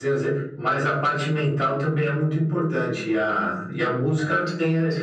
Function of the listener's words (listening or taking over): listening